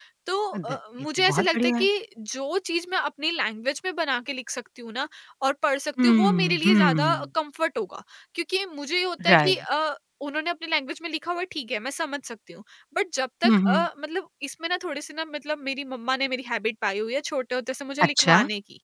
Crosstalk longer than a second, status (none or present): present